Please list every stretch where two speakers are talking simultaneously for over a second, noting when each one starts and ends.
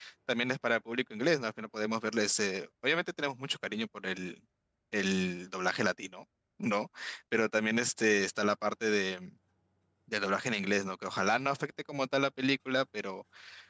none

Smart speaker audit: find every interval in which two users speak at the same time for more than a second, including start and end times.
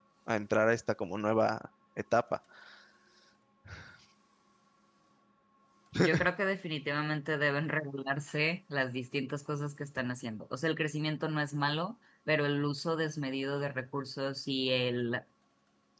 none

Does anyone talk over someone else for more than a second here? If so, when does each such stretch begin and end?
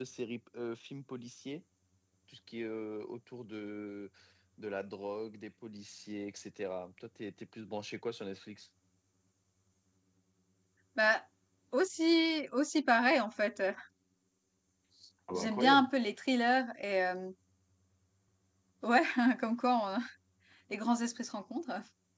none

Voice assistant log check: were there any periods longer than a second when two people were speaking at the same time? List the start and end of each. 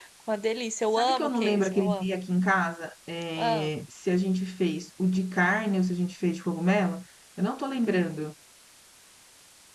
1.0-2.2

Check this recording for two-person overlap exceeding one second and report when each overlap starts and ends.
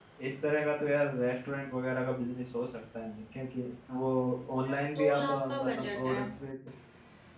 4.6-6.2

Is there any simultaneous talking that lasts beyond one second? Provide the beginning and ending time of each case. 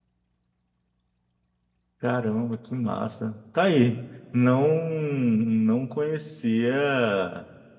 none

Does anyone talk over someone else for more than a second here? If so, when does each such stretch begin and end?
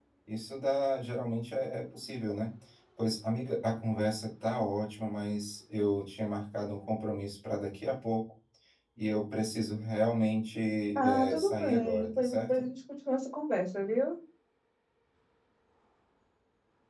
10.9-12.7

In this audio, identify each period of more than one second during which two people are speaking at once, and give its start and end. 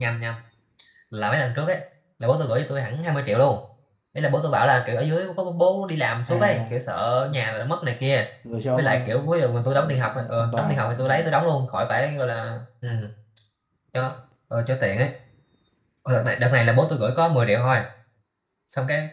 9.7-11.0

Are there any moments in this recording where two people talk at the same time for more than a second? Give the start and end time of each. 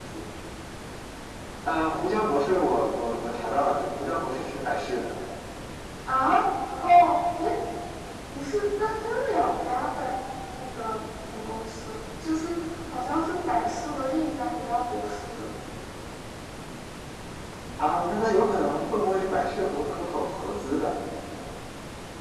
none

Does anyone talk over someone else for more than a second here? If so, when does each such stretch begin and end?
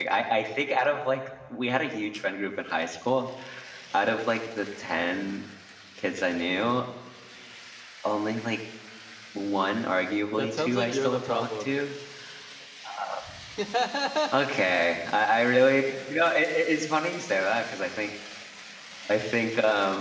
10.4-11.7

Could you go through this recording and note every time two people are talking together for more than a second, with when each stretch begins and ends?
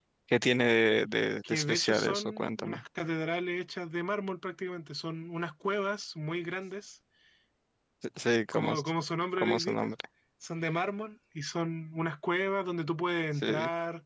1.5-2.8

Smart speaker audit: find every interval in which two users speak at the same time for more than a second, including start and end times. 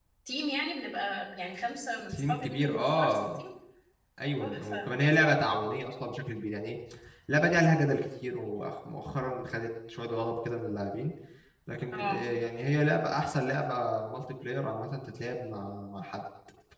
2.1-3.4

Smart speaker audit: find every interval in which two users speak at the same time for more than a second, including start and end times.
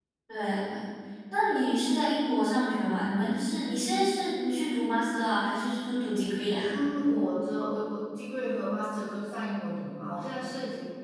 none

